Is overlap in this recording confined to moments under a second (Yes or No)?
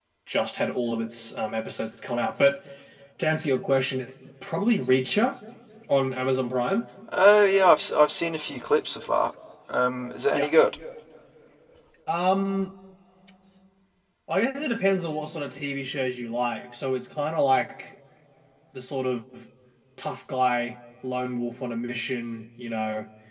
Yes